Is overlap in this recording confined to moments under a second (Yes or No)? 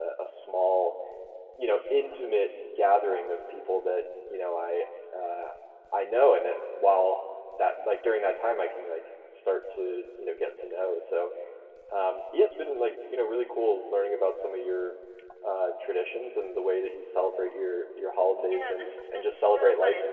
No